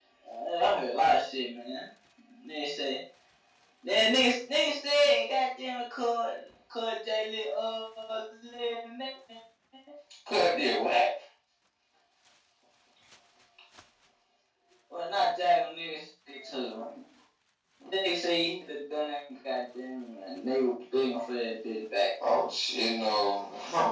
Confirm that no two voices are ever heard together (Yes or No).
Yes